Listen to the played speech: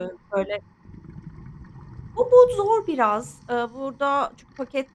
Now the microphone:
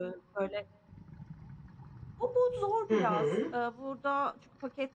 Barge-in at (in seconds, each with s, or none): 2.9 s